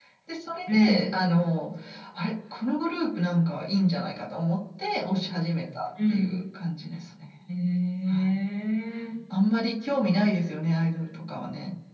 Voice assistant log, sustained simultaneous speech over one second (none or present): none